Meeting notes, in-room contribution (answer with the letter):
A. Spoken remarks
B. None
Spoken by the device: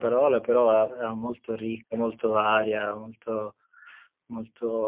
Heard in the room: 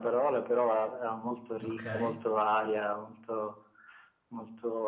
A